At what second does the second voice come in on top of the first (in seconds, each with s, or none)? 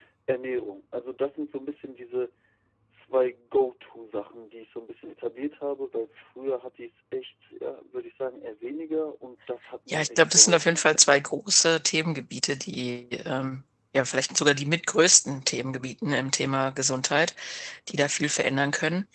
9.9 s